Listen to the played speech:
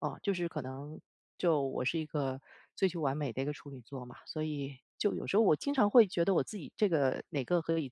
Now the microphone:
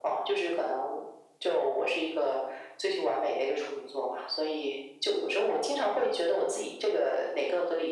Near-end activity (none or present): none